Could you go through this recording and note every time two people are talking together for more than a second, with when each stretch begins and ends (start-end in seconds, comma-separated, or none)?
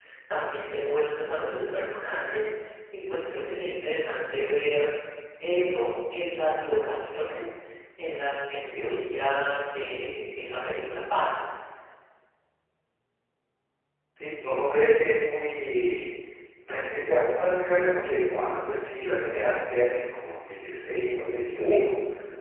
none